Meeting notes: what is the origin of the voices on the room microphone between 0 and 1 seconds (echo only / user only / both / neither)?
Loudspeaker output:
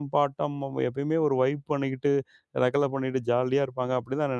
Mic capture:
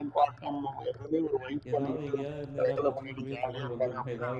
echo only